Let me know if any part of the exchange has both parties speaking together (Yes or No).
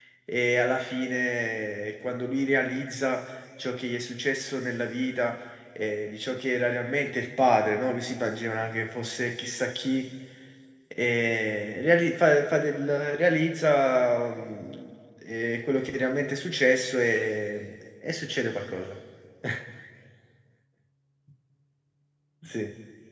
No